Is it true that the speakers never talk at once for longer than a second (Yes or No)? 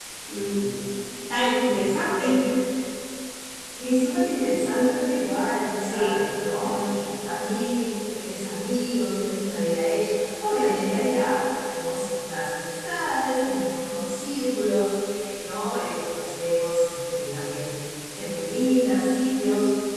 Yes